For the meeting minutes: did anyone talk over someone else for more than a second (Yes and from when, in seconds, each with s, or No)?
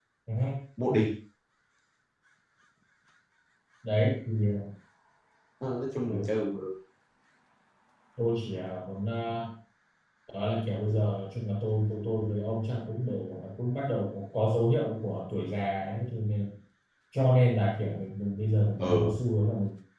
No